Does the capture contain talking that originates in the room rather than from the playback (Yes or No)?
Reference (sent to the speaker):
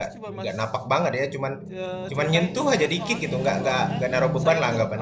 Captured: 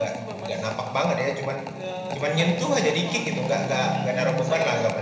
No